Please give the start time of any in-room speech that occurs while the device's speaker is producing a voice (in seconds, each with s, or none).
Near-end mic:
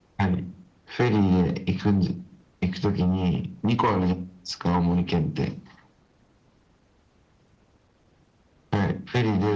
none